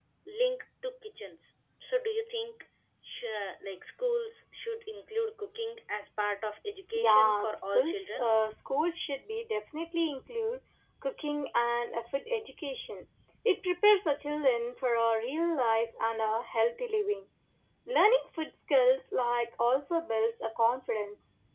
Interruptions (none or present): present